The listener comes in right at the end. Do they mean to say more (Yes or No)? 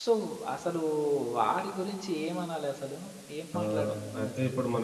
Yes